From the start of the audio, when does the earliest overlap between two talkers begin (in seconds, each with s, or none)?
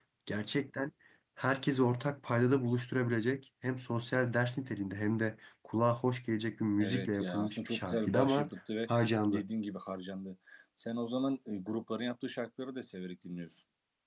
6.8 s